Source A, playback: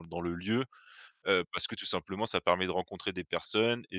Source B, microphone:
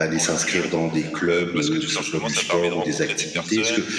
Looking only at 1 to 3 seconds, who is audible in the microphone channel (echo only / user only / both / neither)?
both